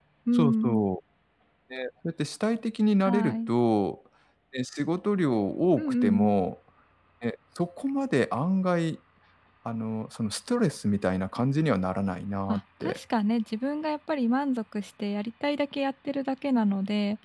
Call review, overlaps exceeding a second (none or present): none